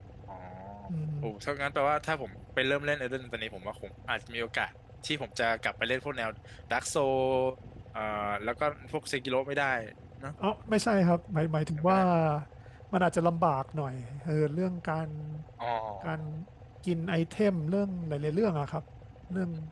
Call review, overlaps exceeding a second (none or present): none